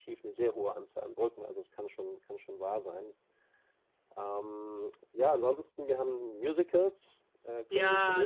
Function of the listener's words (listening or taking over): taking over